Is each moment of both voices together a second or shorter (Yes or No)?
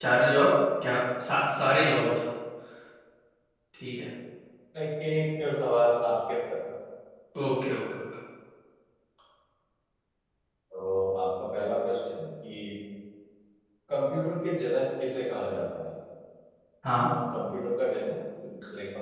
Yes